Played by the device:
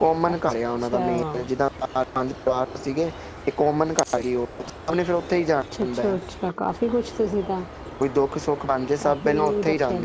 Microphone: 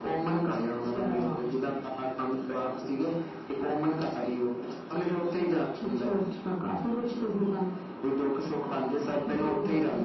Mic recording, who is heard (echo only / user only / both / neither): both